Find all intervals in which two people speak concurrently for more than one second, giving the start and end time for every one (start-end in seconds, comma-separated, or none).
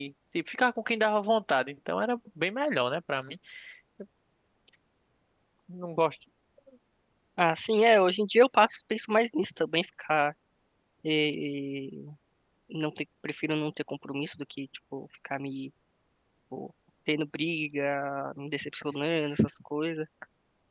none